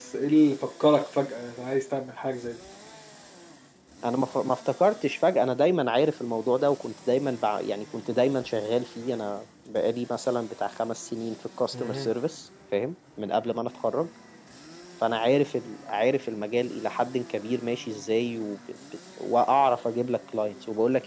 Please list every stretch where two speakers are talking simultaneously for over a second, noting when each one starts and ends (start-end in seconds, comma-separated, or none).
none